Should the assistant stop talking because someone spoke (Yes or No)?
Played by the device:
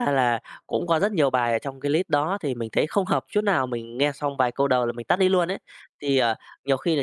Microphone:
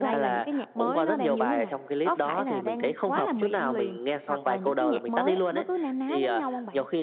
Yes